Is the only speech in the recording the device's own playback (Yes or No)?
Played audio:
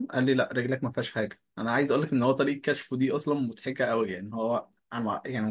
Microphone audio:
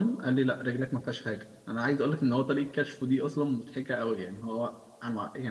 Yes